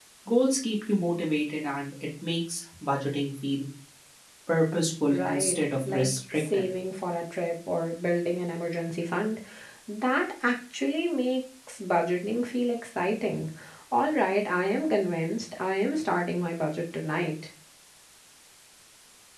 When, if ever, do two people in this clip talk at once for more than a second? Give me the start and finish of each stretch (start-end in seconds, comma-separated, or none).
5.1-6.6